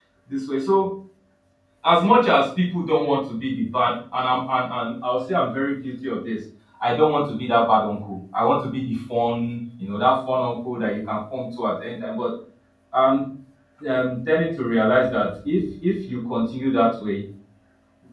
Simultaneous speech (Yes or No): No